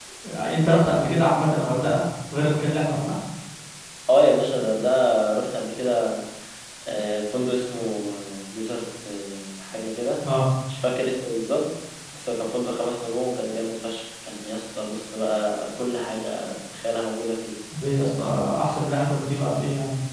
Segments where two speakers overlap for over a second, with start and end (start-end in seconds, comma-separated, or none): none